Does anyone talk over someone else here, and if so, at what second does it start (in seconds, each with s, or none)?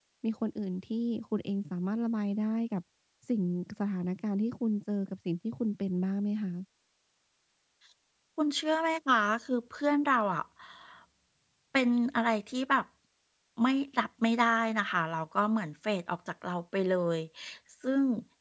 none